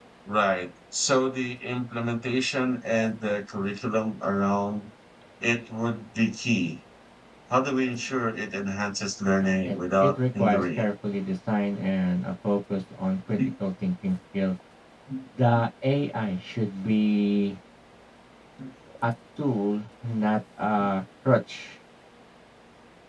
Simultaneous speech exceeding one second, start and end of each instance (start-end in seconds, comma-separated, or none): 9.4-10.9